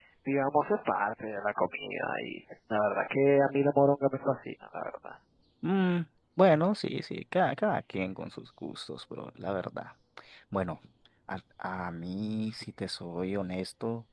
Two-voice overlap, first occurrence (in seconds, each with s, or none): none